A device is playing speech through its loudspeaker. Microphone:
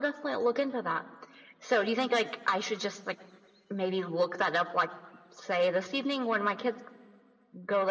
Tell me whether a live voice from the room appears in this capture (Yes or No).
No